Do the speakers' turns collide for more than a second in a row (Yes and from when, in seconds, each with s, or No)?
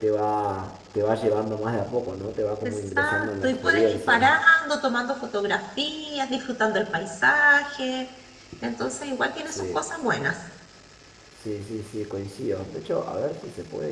Yes, from 2.6 s